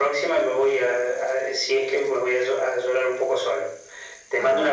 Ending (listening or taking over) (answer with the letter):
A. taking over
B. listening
B